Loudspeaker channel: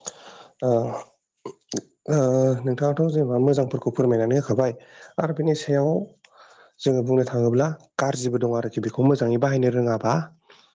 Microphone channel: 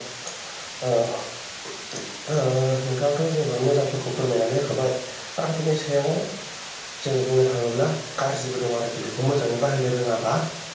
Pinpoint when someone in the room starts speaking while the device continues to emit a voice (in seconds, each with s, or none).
none